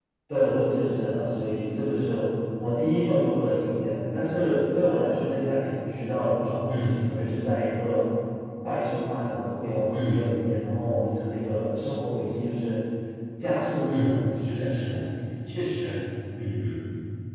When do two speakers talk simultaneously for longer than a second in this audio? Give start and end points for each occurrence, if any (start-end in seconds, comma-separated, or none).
none